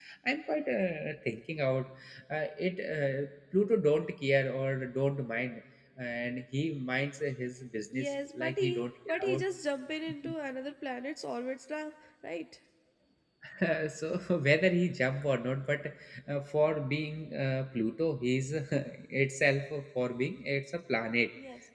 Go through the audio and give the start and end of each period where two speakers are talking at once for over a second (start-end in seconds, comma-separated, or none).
7.9-9.4